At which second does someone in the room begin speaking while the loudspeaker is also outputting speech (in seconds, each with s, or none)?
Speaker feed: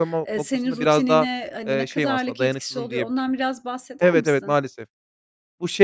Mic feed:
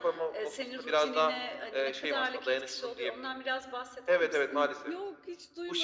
4.5 s